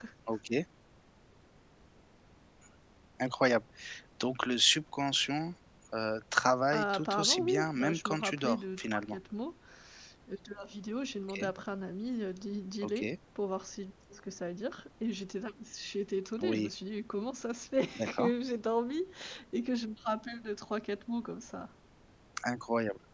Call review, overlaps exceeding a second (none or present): present